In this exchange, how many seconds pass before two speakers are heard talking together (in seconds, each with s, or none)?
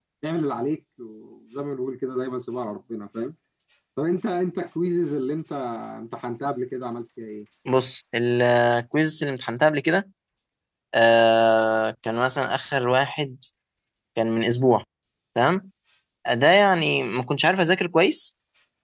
none